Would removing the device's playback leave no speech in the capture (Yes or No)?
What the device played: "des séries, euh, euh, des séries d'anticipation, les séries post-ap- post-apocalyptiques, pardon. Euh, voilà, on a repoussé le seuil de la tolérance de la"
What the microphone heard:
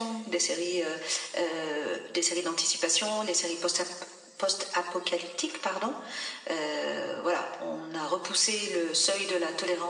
Yes